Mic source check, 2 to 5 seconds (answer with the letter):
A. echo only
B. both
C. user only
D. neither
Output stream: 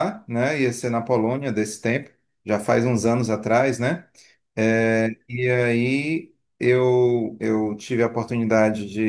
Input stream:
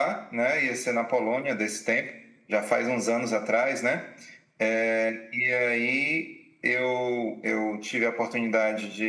A